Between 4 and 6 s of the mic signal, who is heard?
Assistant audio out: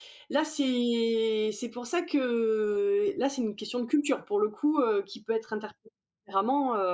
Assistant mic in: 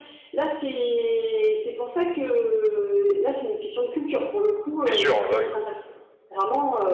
both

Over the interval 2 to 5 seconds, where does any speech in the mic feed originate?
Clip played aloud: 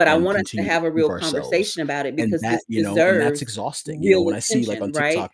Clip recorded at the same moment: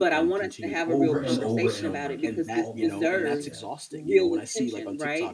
both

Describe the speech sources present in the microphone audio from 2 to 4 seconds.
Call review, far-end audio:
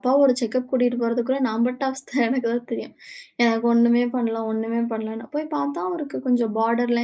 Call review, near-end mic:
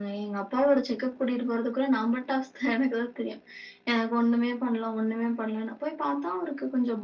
echo only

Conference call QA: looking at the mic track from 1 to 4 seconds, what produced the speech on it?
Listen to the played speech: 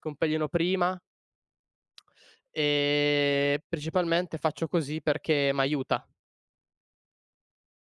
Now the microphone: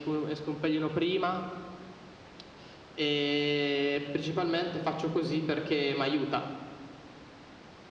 echo only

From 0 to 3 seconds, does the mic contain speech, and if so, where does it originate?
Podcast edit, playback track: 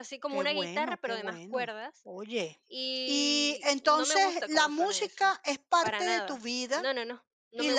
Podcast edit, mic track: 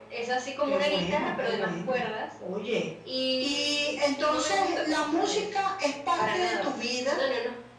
echo only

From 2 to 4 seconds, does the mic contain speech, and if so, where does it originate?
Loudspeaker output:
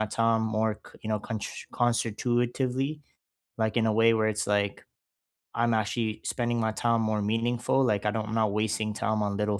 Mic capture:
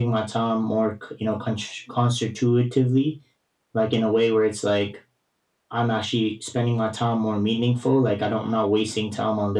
echo only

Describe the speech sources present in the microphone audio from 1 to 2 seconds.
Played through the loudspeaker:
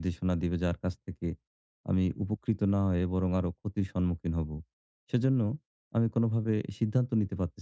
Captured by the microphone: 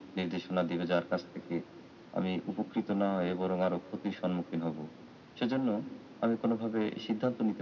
echo only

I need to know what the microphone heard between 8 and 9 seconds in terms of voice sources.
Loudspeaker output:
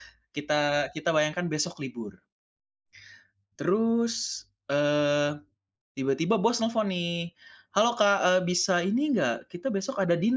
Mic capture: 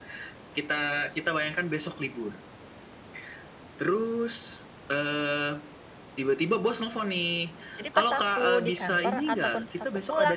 both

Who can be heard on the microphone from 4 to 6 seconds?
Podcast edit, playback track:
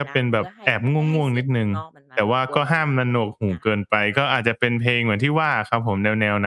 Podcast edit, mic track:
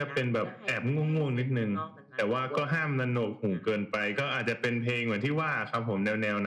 echo only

